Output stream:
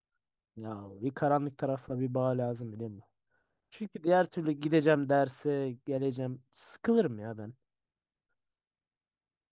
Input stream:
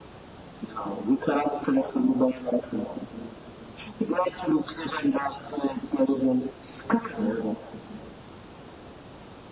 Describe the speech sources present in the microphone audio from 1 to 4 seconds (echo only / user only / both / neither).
echo only